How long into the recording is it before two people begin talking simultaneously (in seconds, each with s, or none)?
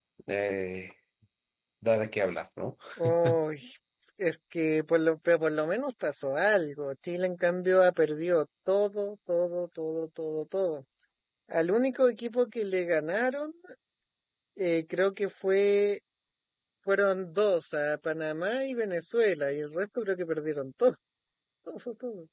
none